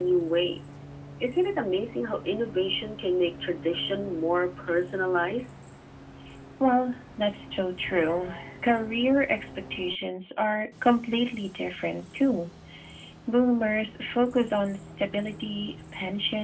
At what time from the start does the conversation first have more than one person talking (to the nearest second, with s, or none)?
none